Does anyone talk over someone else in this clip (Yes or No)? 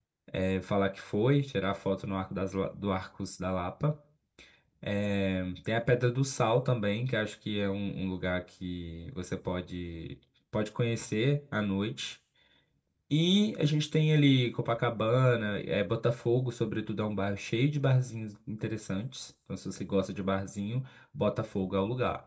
No